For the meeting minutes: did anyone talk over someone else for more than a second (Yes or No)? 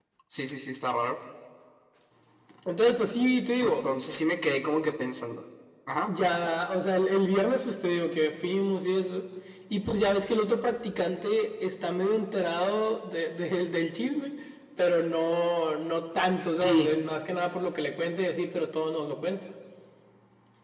No